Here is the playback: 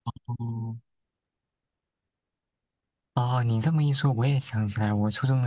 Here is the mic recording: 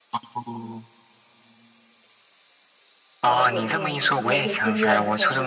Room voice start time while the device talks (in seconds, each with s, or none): 3.2 s